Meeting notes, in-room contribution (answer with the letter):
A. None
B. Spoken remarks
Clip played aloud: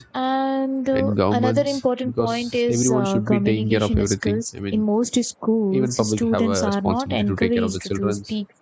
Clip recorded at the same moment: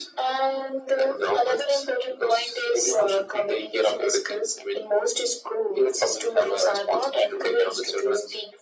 A